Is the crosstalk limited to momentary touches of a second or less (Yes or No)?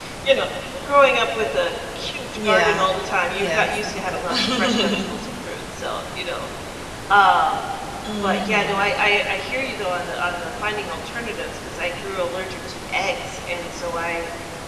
No